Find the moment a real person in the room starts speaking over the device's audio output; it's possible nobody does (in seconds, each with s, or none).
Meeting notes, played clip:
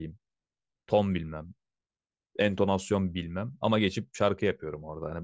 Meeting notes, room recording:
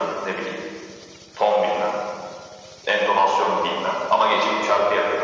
none